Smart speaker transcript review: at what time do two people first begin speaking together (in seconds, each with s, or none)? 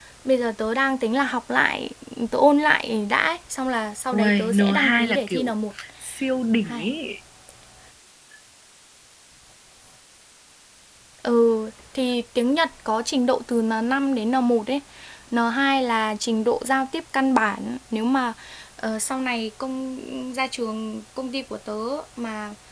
4.1 s